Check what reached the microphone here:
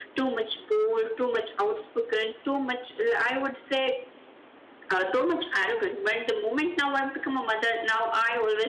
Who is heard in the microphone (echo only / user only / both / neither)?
echo only